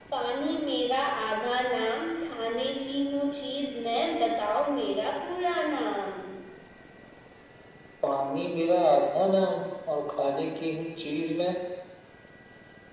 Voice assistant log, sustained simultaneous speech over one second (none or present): none